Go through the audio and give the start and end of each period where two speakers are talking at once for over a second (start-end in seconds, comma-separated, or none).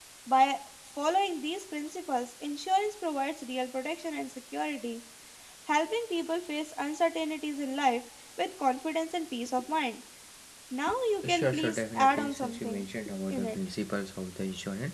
11.2-12.9